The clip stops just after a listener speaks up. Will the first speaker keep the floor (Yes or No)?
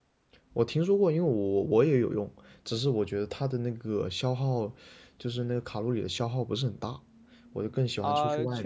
No